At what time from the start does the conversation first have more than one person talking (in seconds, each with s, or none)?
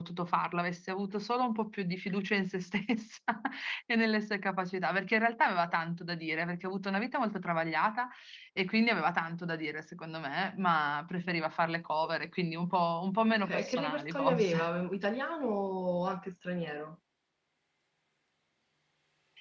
13.4 s